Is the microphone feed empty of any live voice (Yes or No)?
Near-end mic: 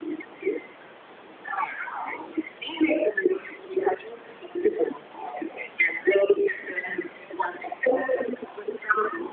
Yes